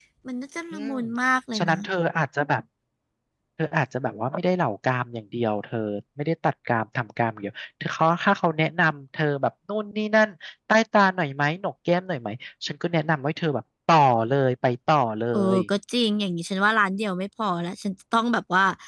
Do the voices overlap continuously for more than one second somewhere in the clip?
No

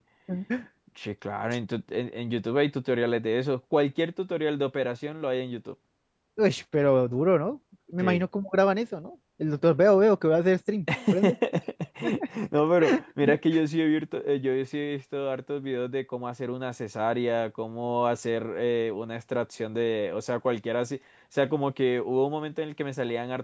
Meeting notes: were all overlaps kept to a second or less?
Yes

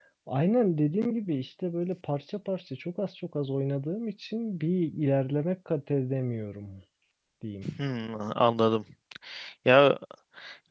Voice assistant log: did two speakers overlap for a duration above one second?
No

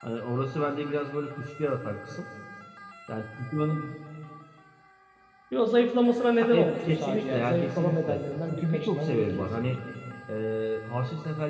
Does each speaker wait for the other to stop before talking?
No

